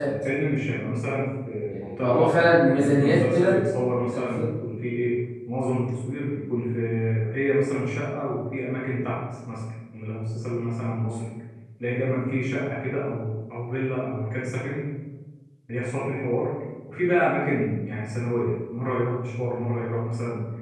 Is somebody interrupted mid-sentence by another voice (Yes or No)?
Yes